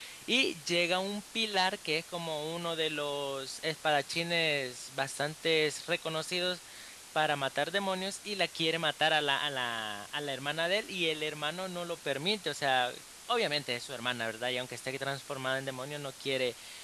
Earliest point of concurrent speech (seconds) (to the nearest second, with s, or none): none